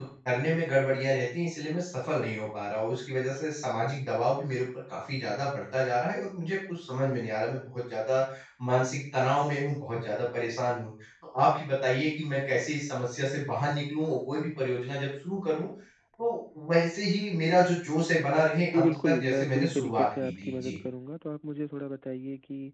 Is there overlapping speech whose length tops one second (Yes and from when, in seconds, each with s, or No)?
Yes, from 18.7 s